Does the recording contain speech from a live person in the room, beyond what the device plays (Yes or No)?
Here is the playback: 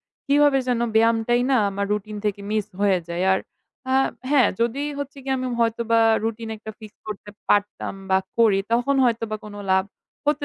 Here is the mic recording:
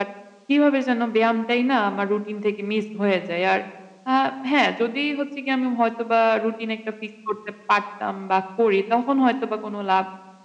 No